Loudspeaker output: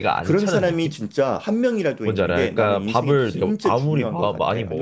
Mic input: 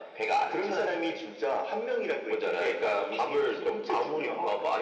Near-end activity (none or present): none